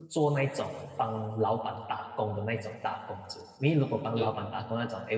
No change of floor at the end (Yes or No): Yes